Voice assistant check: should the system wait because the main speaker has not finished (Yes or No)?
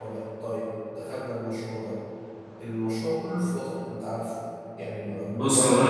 No